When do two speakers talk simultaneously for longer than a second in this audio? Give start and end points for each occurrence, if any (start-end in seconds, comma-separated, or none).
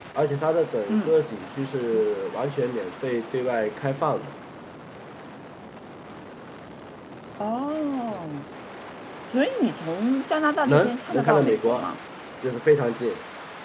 10.6-11.9